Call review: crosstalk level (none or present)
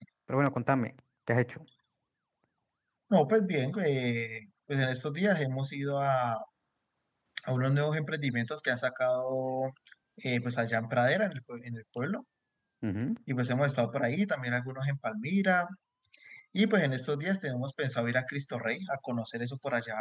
none